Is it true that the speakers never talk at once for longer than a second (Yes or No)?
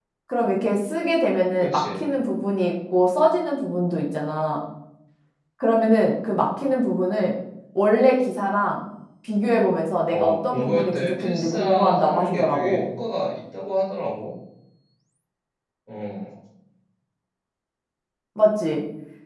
No